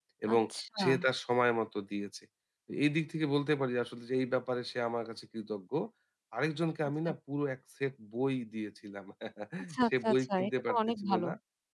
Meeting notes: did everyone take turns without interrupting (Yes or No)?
No